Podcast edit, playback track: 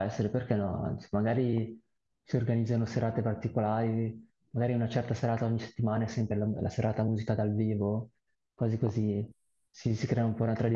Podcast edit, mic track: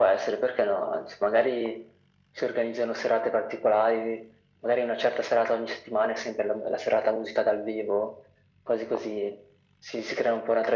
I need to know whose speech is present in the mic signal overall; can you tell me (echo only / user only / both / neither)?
echo only